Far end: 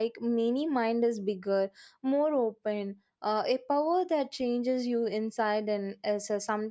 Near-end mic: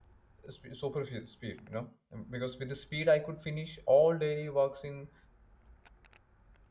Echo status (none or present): none